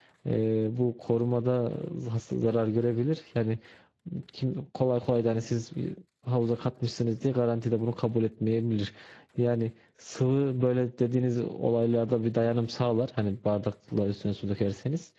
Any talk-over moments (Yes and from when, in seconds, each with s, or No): No